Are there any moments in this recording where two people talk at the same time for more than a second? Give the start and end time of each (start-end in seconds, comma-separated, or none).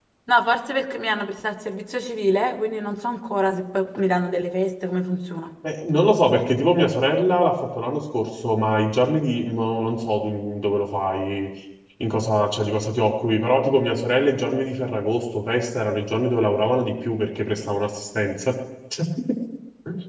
none